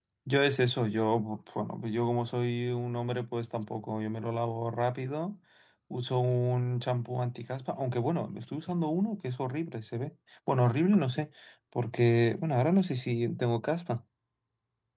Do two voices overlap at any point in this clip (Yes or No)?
No